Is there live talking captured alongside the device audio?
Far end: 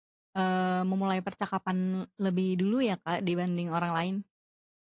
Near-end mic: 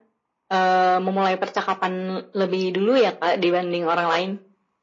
No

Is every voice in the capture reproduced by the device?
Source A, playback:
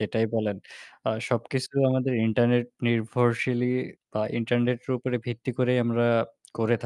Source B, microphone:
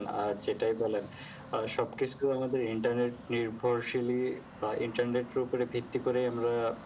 Yes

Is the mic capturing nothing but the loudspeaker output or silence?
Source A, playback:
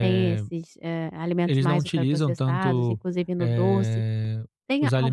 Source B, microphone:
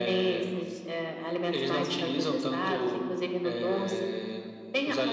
Yes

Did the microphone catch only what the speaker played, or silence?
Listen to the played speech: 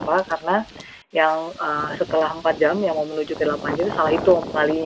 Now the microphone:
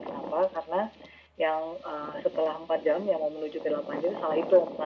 Yes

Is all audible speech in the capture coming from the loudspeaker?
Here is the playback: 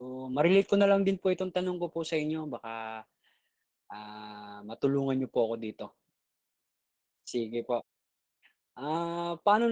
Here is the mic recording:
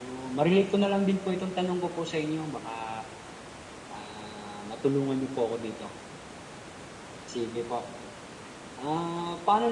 Yes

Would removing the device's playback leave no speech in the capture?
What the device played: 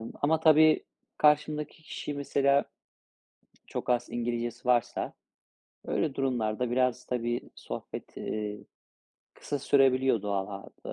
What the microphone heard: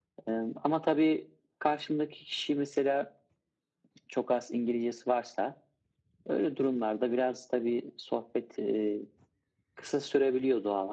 Yes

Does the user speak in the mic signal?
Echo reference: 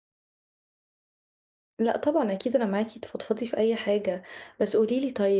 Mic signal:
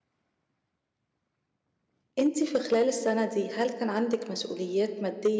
Yes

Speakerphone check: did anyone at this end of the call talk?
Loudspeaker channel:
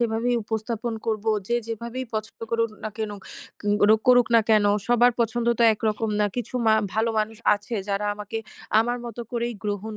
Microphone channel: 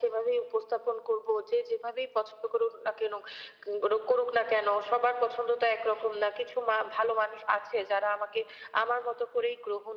No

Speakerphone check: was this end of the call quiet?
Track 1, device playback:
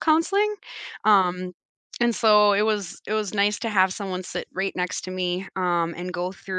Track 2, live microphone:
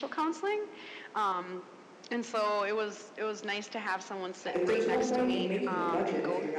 No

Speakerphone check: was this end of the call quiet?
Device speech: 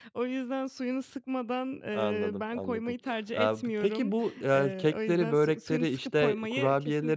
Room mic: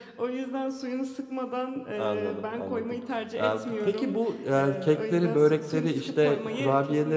Yes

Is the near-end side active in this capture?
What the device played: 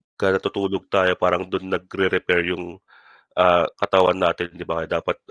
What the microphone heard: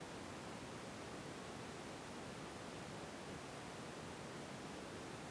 No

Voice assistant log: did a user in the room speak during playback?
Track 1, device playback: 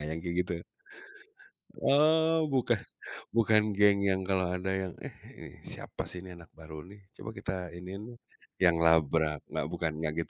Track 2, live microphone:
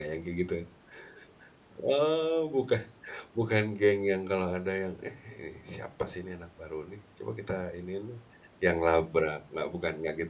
No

